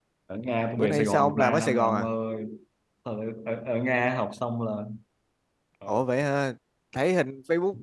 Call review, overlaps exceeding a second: present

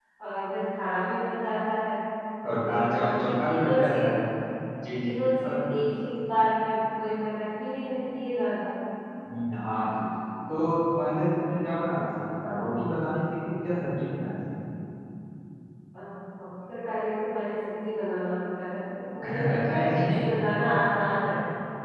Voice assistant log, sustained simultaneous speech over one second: present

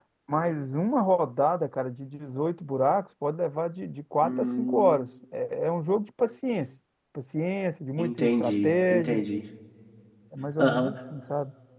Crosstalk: present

